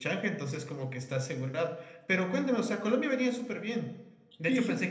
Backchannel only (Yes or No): Yes